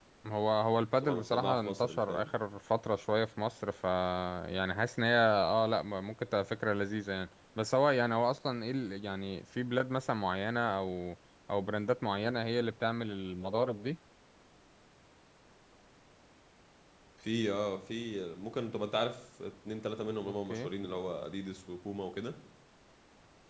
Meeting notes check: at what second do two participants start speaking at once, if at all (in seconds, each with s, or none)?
1.0 s